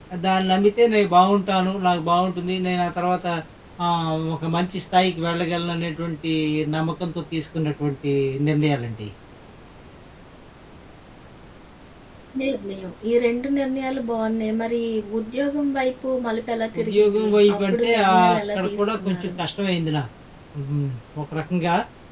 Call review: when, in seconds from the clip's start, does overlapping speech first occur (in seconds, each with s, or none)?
16.7 s